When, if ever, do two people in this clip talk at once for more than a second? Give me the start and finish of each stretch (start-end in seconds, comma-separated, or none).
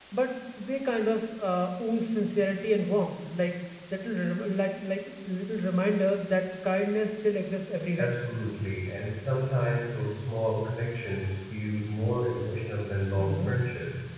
none